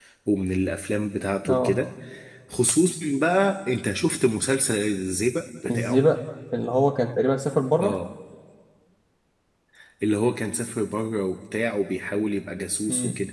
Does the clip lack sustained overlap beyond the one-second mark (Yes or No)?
Yes